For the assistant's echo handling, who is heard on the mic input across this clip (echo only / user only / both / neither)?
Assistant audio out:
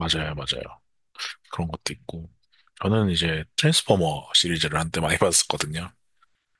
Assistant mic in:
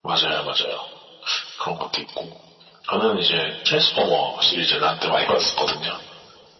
echo only